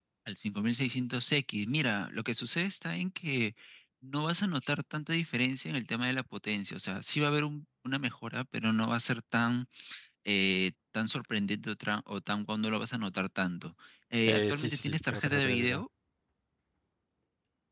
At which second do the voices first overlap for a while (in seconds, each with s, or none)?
14.3 s